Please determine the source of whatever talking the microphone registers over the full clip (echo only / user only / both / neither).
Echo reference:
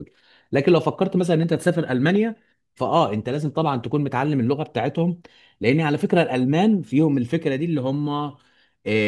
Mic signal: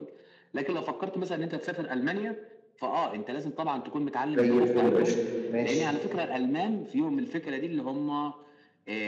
both